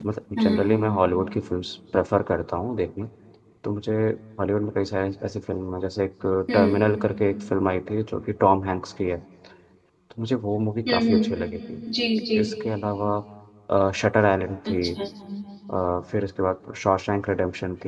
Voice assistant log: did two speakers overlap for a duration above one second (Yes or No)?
No